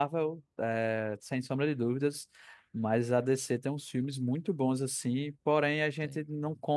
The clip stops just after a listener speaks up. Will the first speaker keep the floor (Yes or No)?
Yes